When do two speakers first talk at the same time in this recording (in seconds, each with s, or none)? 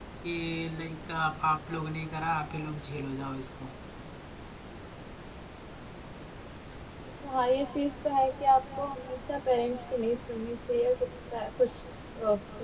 none